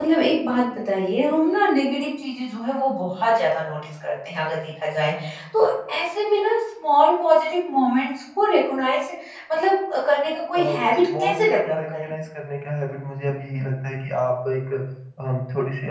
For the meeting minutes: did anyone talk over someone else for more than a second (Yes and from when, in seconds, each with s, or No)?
Yes, from 10.5 s